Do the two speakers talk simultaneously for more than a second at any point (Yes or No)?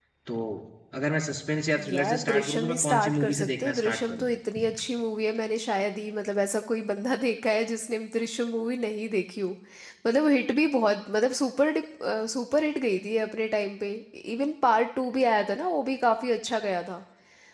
Yes